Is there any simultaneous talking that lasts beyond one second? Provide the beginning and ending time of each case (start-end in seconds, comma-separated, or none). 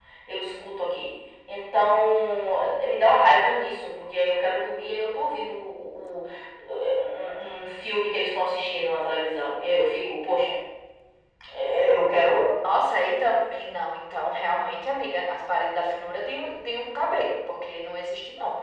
none